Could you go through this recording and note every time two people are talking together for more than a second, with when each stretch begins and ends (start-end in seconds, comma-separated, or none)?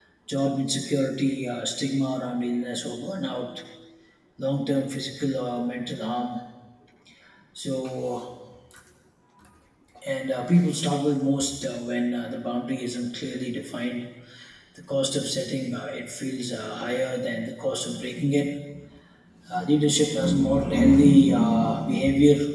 none